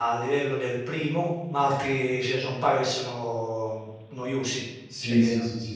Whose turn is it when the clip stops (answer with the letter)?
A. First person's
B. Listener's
B